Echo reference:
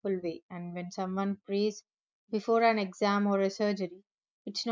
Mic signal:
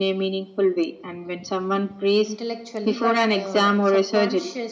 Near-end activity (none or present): present